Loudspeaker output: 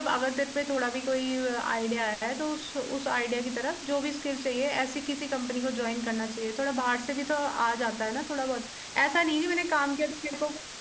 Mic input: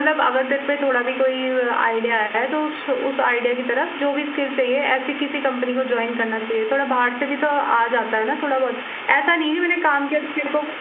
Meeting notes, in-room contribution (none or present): none